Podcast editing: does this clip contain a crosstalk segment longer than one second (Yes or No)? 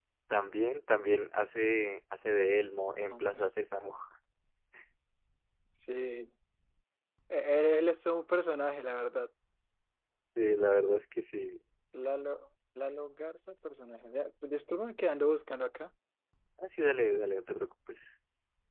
No